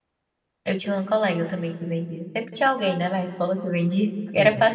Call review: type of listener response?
listening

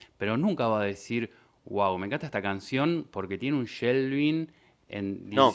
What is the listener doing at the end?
listening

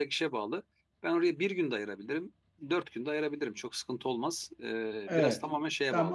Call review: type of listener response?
taking over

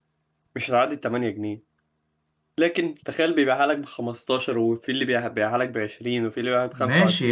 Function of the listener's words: taking over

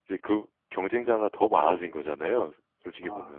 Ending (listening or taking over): taking over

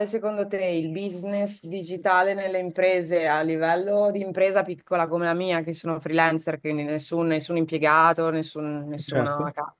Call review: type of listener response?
listening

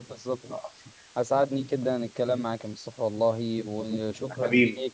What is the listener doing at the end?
listening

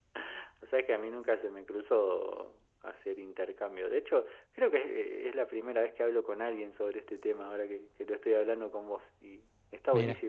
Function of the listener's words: listening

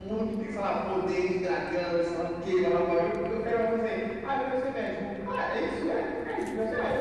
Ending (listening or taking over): taking over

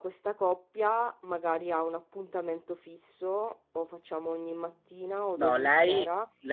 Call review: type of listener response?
taking over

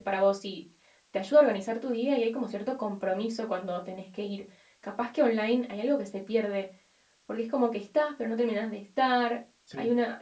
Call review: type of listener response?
listening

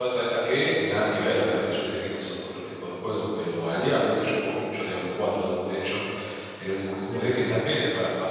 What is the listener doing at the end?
listening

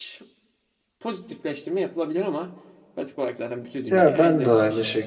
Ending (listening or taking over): taking over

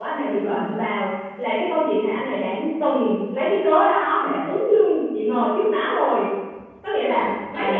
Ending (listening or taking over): listening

